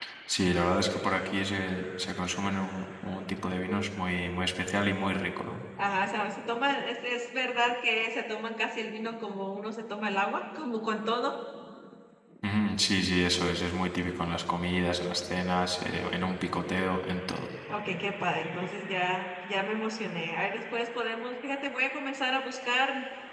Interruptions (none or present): none